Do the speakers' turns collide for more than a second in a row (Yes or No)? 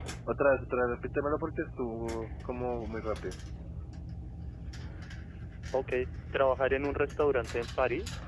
No